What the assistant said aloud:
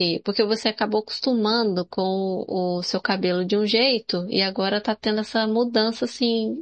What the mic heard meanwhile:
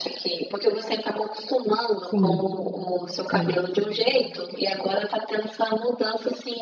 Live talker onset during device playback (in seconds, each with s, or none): 2.1 s